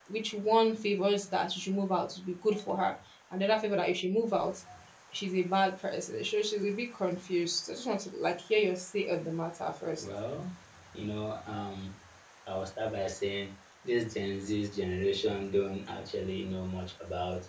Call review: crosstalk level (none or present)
none